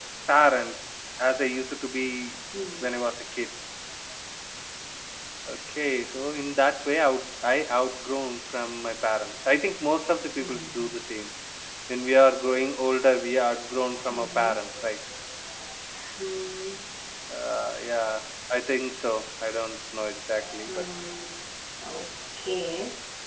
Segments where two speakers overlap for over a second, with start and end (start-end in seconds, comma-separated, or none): none